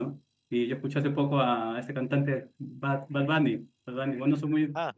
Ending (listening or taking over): listening